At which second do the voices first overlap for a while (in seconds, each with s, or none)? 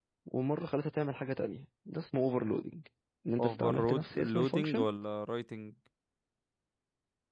3.4 s